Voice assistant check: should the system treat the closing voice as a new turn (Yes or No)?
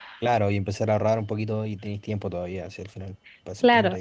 Yes